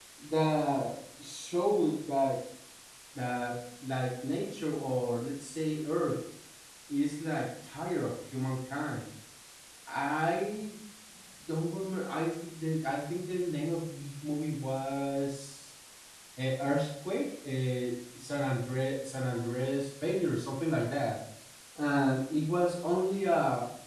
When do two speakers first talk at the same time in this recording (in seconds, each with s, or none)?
none